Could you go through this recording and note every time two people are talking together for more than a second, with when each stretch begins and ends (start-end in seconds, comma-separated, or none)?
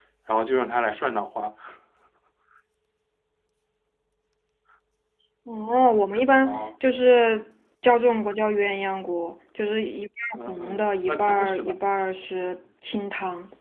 10.4-11.8